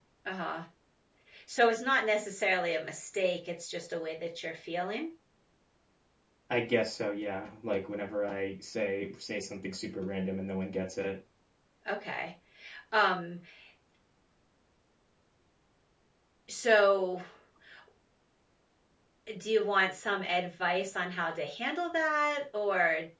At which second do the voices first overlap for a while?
none

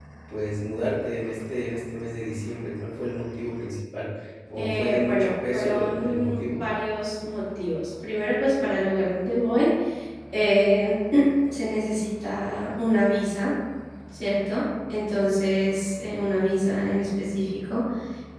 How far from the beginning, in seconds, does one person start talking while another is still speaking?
4.6 s

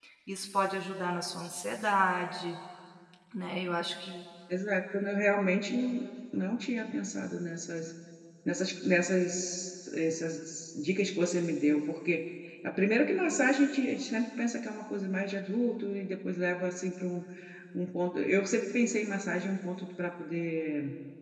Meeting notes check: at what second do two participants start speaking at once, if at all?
none

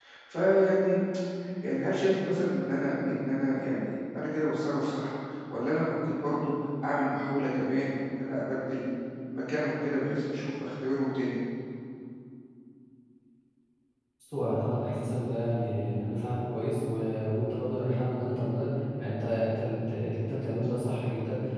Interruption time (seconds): none

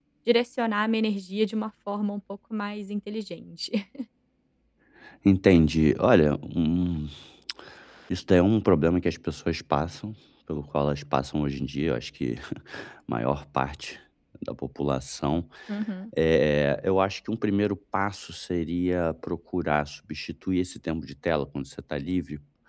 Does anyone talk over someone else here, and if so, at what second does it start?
none

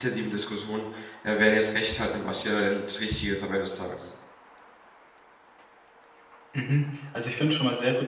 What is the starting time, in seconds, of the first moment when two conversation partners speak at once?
none

